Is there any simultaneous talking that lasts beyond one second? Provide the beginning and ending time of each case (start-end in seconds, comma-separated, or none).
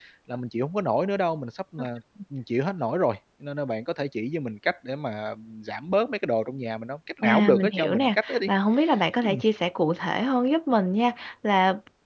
7.2-8.5